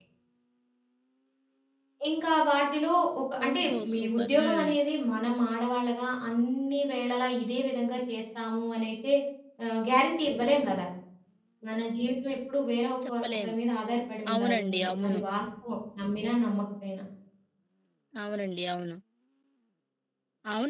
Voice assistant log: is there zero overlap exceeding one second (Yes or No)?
No